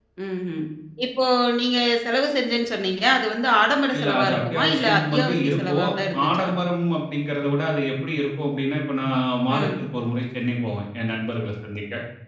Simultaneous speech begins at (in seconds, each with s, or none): 4.0 s